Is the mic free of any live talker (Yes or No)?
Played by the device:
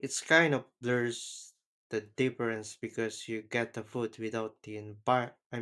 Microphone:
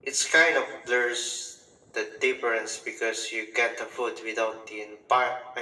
Yes